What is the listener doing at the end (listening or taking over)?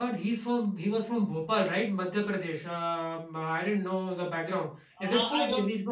taking over